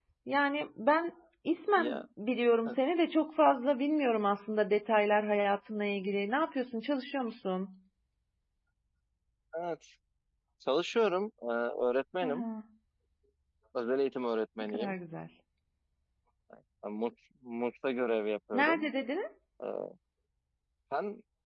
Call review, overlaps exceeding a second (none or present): none